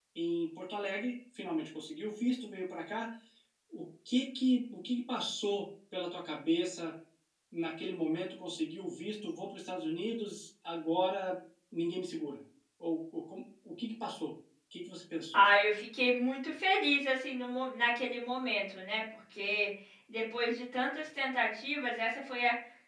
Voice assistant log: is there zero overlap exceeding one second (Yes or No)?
Yes